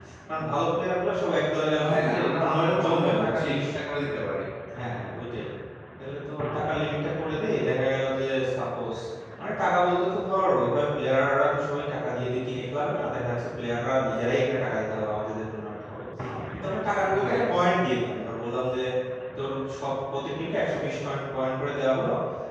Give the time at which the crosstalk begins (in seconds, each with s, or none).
1.9 s